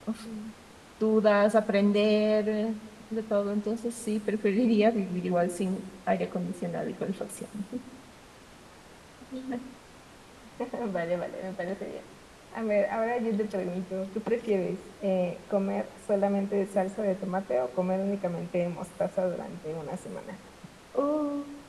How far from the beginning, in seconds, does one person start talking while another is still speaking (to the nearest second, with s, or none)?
none